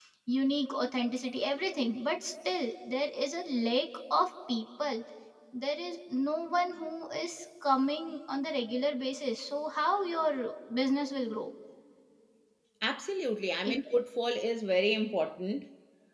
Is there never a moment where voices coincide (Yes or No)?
Yes